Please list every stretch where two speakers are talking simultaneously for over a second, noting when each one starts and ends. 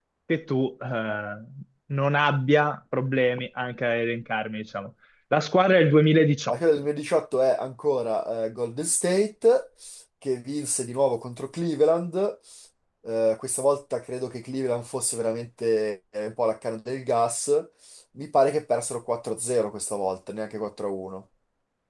none

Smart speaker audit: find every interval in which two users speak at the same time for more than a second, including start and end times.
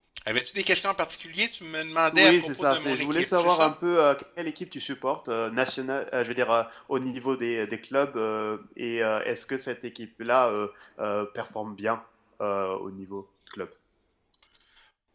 2.1-3.7

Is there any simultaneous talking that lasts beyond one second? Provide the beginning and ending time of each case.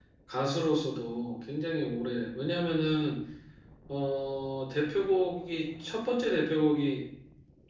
none

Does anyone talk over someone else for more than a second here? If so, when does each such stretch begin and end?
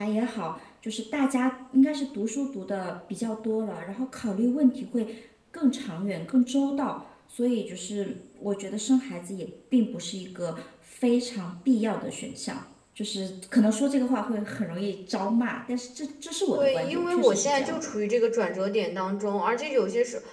16.5-17.9

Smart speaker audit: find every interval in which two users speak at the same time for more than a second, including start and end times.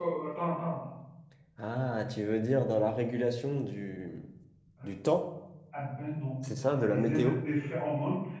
none

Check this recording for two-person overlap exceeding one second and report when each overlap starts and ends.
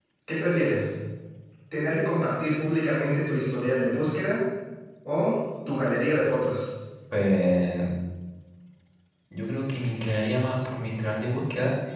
none

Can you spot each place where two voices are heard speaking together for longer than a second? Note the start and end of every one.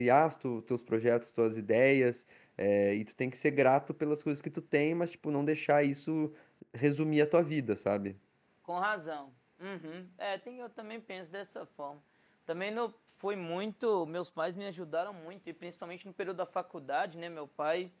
none

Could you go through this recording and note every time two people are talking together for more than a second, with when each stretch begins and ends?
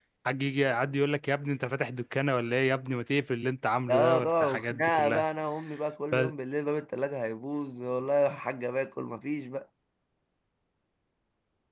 3.9-5.2

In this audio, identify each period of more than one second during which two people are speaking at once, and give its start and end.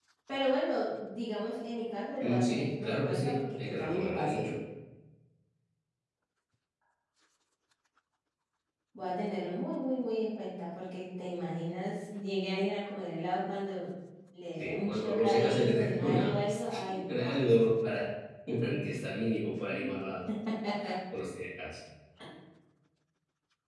2.2-4.5, 14.6-17.7

